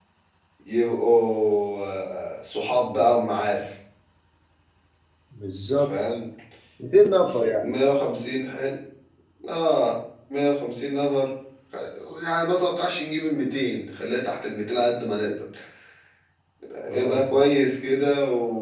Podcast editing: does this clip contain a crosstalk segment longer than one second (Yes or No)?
No